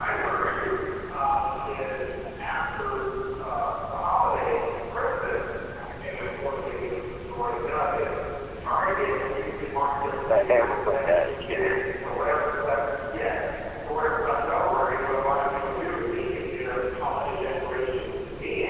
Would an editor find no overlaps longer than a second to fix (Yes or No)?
No